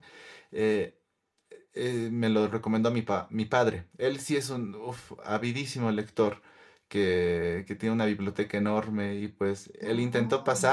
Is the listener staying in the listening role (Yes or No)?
Yes